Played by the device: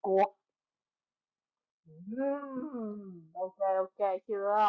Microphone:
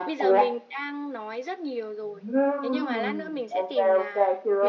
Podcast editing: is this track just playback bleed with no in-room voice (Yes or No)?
No